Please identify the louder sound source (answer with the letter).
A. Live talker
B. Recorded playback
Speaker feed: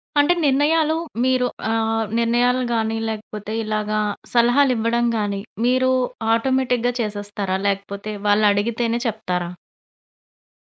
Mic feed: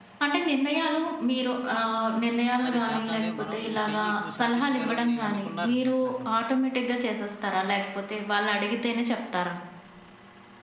B